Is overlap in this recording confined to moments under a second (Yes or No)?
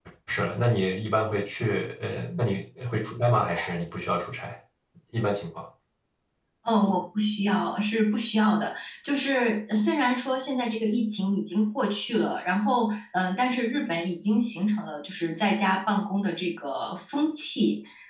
Yes